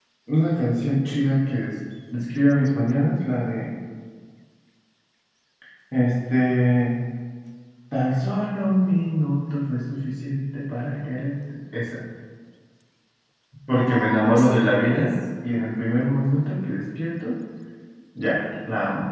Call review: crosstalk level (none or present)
present